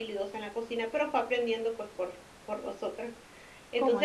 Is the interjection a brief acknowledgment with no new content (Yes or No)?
Yes